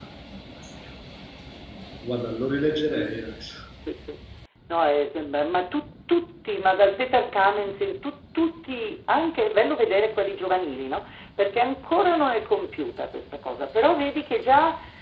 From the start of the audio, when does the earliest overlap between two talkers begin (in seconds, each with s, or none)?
none